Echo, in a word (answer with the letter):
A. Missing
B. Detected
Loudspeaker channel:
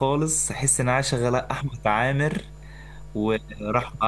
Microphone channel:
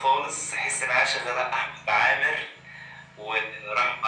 B